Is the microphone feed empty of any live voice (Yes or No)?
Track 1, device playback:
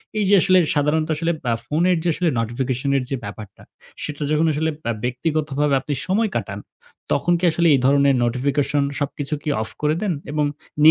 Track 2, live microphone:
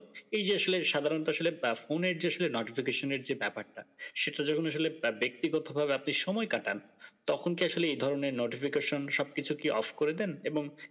Yes